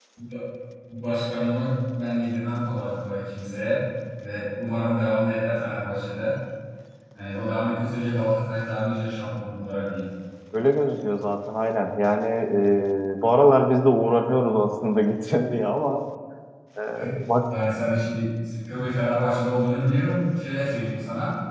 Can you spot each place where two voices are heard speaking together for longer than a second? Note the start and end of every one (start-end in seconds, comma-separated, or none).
none